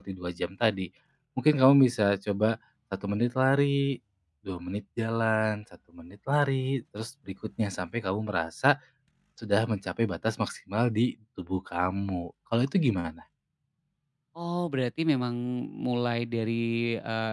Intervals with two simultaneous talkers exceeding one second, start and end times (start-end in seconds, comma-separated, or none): none